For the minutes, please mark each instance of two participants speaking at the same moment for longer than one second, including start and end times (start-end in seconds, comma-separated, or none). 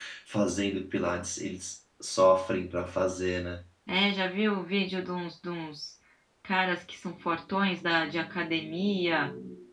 none